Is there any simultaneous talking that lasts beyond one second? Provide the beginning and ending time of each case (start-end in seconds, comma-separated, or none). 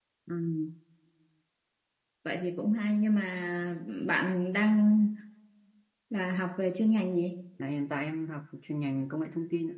none